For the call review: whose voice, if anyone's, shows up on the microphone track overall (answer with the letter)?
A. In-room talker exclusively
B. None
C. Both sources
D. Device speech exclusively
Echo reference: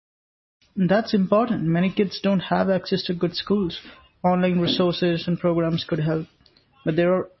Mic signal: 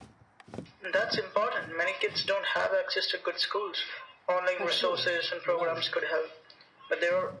C